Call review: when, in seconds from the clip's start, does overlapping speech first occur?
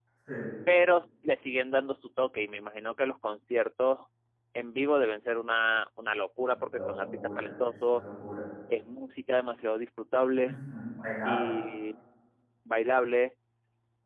6.5 s

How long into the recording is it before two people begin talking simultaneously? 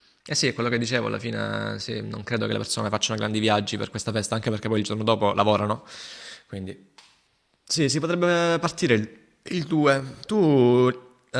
none

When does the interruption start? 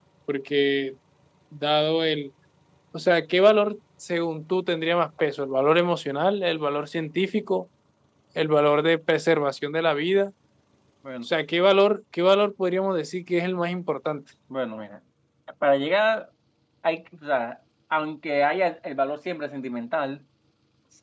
none

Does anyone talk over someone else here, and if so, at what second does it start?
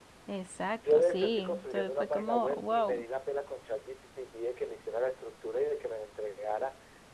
0.8 s

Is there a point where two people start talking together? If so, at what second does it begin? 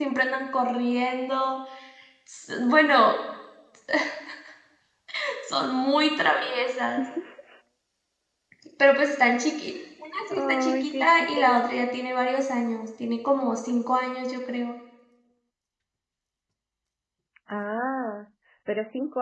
10.3 s

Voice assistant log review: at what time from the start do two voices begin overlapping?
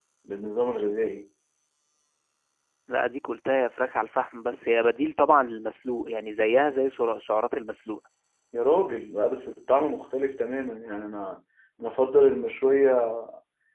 none

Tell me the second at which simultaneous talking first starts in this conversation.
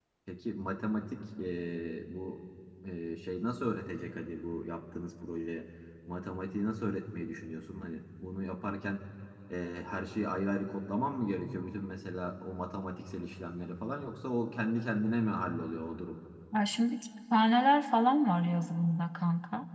none

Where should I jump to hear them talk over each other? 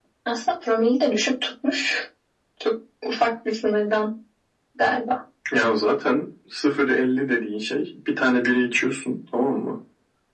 none

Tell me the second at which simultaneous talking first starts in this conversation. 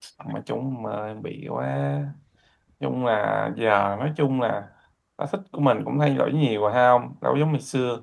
none

